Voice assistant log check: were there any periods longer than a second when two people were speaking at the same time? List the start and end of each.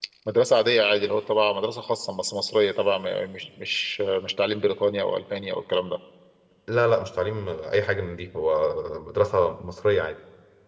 none

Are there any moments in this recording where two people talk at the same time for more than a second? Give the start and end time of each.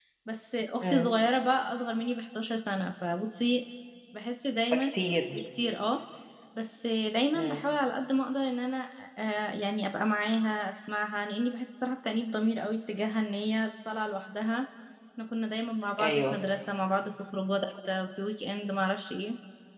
none

